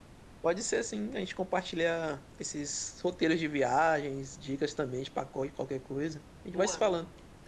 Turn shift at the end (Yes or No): Yes